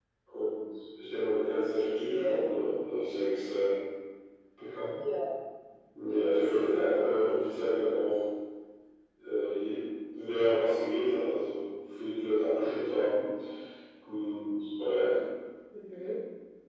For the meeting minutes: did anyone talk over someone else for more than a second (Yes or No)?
Yes